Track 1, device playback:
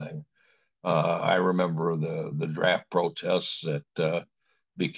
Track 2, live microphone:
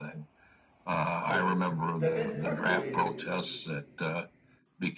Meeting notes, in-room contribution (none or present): present